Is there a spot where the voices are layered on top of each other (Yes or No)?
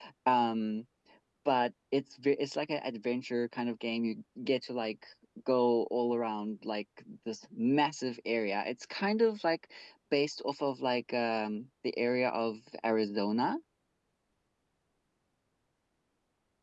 No